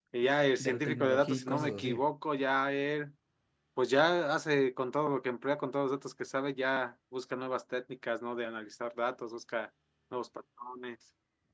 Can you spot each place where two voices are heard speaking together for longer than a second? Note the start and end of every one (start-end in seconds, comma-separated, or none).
0.6-2.1